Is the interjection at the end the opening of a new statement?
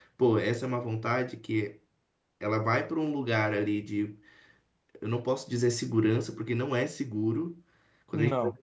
No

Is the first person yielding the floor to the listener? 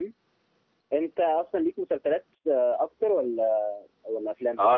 Yes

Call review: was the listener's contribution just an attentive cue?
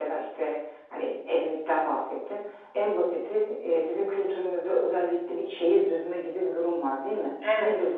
Yes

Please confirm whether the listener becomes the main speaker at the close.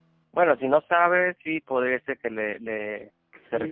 Yes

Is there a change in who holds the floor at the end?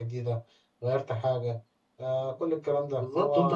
Yes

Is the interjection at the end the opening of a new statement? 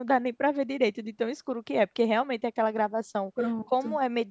No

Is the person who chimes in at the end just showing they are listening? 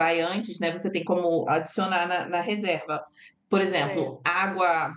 Yes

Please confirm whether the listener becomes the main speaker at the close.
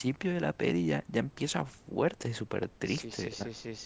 Yes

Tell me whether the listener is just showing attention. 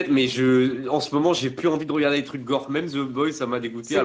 No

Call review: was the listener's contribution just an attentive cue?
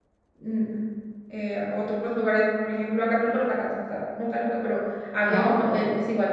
Yes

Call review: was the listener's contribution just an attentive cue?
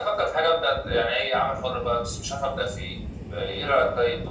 No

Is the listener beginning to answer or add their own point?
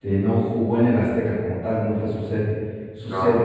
No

